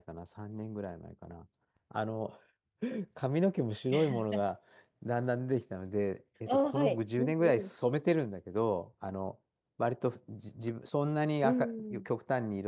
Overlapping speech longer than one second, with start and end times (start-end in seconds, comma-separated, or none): 6.5-7.7